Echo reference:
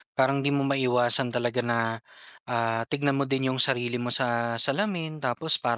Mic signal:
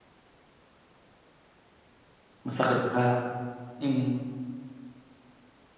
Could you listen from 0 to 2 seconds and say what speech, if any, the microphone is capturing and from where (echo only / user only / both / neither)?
neither